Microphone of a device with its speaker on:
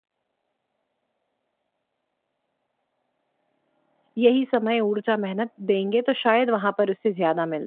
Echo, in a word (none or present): none